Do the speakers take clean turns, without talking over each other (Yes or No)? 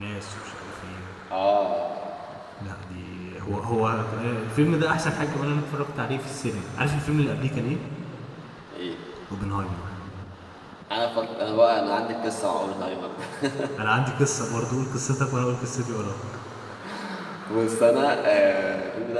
Yes